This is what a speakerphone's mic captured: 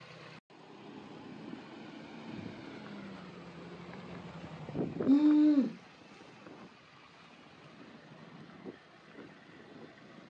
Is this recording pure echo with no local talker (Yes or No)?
No